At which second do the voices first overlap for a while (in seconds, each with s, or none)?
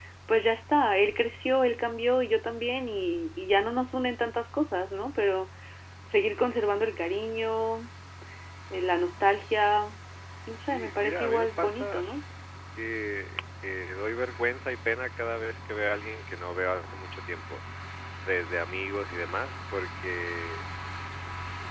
10.7 s